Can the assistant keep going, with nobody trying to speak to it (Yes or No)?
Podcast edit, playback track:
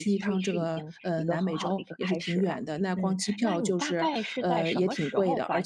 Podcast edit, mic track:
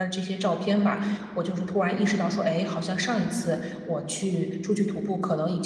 No